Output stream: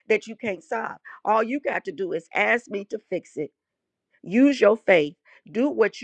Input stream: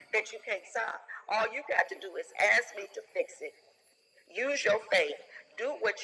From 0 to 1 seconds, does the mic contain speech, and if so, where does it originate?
echo only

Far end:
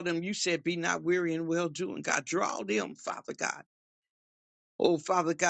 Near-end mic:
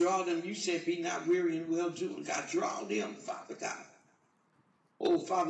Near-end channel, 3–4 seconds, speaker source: echo only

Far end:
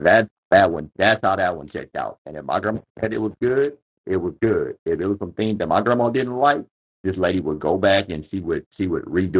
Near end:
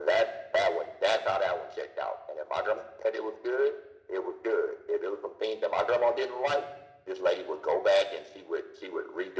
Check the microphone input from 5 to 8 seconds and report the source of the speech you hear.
echo only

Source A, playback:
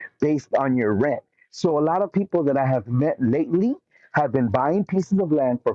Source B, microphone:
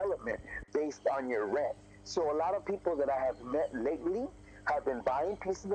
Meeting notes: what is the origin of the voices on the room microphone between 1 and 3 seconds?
echo only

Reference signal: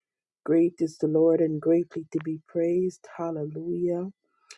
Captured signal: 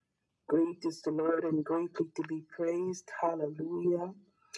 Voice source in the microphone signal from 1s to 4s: echo only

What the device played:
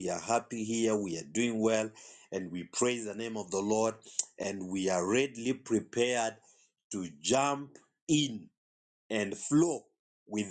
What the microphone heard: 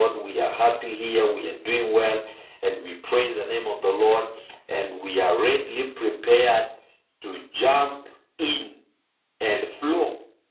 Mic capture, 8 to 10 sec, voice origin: echo only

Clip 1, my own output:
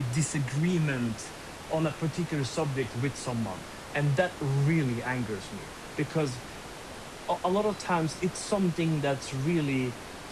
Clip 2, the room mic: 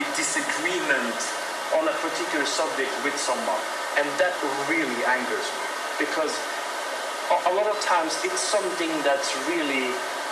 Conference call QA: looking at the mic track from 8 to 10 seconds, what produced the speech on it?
echo only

